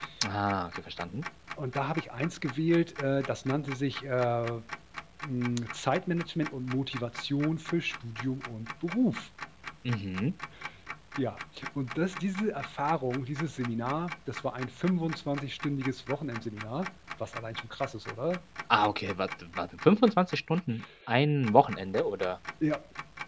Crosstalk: none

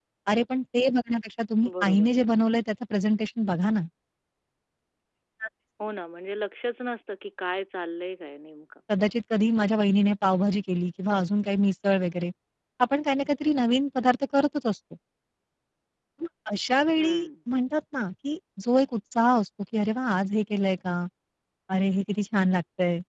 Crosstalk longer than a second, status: none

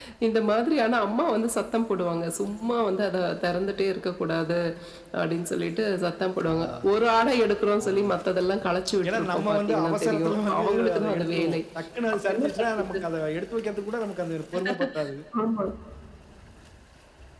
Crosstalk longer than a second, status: present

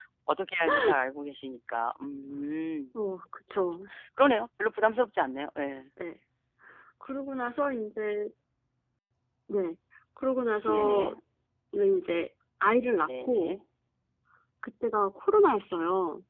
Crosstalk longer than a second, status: none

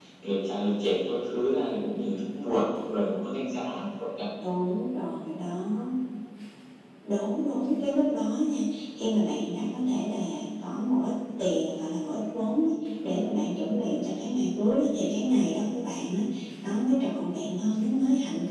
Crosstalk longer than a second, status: none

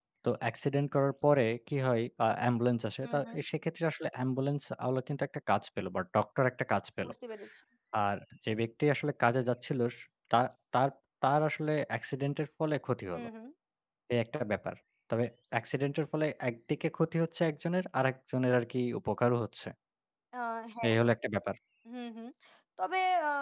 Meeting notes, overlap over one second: none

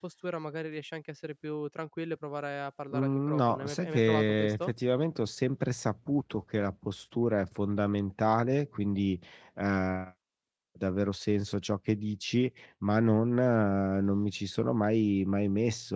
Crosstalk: present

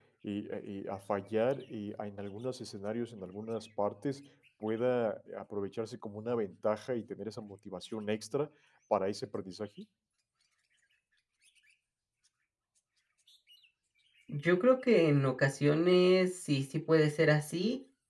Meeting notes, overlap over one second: none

